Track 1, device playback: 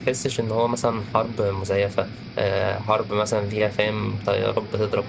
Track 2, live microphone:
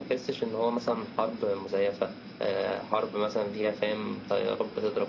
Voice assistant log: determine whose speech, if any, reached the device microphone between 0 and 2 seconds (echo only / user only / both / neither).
echo only